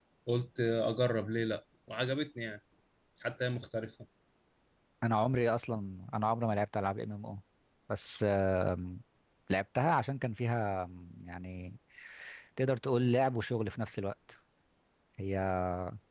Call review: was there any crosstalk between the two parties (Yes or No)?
No